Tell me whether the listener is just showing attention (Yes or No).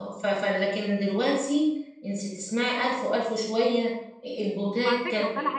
No